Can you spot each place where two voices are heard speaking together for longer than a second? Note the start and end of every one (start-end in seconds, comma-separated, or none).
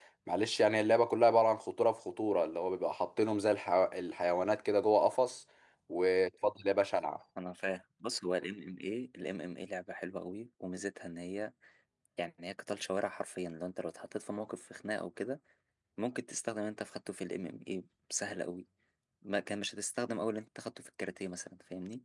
none